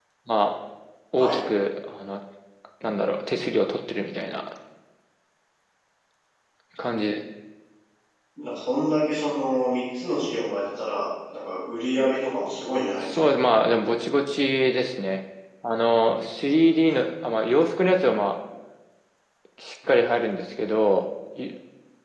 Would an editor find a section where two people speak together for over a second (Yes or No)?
No